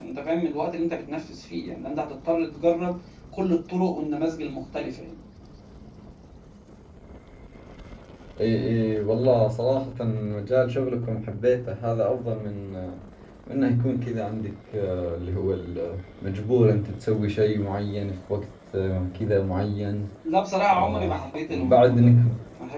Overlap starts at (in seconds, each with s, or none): 20.7 s